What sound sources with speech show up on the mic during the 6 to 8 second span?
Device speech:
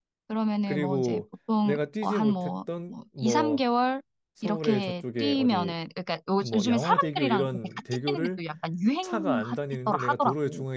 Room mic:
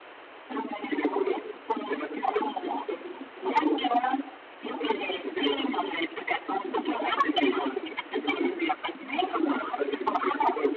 echo only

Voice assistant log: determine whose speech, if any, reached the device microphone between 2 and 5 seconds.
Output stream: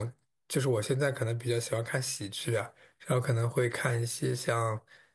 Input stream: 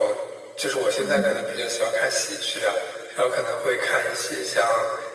echo only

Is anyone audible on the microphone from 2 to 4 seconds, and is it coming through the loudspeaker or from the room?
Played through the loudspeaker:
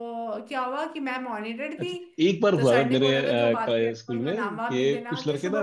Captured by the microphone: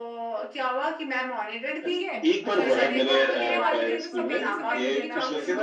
both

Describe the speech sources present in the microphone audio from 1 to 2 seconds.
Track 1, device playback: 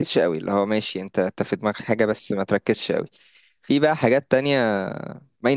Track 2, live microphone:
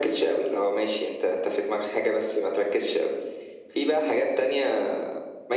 echo only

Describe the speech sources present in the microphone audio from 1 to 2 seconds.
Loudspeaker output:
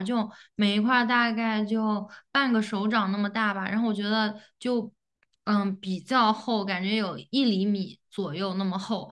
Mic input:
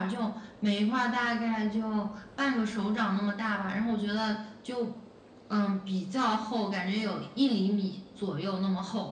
echo only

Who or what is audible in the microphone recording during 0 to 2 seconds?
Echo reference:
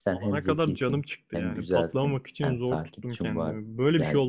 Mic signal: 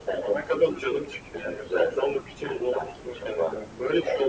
echo only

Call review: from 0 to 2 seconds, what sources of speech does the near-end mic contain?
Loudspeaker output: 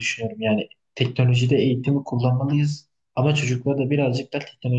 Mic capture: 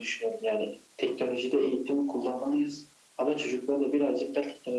echo only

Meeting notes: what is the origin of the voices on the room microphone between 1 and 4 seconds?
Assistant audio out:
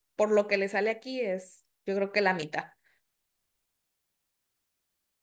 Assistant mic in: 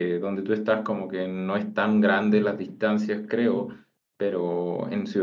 user only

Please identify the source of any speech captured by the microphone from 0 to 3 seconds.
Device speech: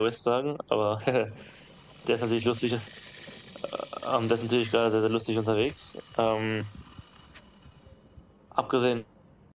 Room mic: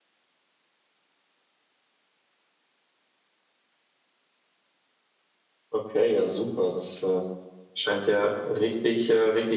neither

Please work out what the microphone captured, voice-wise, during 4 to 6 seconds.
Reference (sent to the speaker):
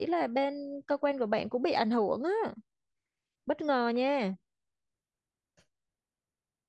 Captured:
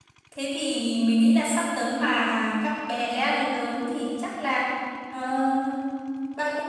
user only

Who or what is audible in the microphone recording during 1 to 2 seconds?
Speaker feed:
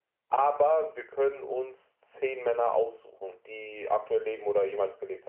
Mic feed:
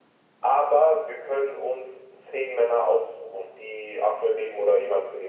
echo only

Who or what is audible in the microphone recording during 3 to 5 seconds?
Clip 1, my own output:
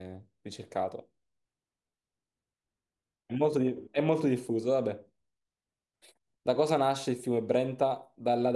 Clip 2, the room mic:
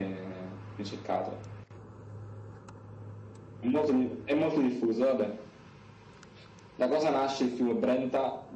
echo only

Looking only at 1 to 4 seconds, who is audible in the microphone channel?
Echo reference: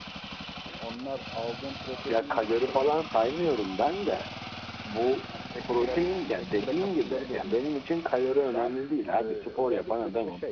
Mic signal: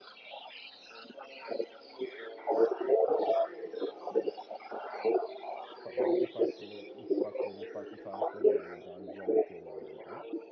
echo only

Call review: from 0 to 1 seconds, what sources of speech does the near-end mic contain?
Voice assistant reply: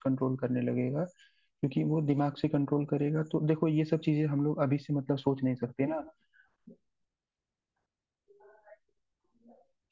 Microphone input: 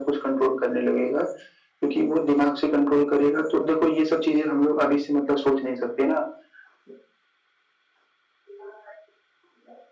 echo only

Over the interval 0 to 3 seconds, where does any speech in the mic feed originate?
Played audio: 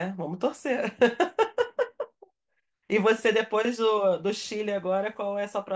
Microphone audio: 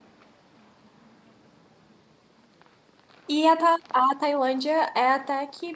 neither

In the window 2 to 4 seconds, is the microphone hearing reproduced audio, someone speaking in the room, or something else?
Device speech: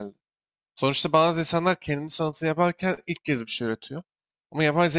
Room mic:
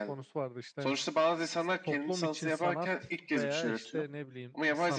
both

